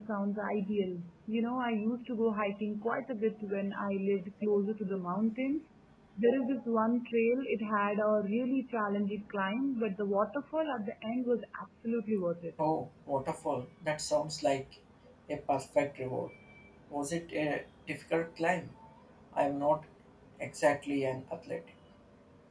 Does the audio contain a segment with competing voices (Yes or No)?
No